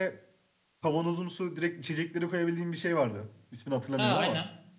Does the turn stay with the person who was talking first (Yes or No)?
No